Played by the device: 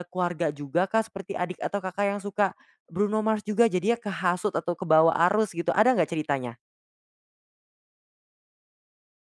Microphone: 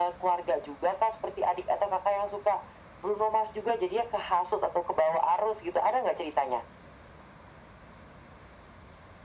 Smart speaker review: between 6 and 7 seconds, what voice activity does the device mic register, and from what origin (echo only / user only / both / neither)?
echo only